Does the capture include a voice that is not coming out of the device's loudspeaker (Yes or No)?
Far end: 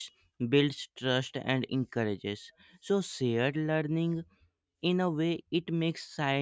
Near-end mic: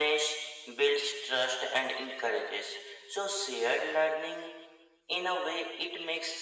No